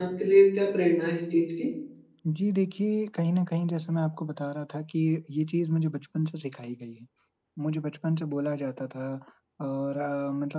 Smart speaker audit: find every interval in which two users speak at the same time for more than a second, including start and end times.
none

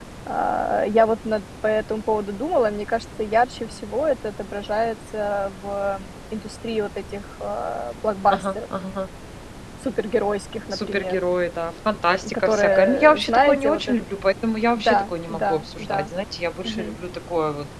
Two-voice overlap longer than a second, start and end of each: 12.3-14.0, 14.8-16.1

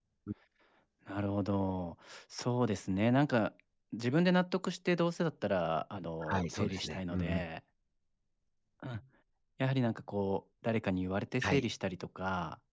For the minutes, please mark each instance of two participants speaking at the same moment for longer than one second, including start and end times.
6.2-7.4

